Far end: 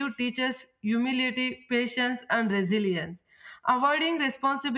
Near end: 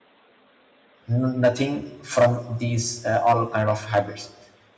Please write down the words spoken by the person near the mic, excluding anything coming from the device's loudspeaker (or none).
n- nothing from these uh, all kind of habits.